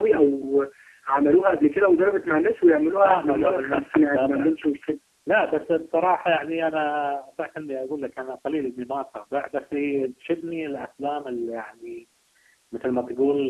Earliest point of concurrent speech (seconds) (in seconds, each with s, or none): 3.0 s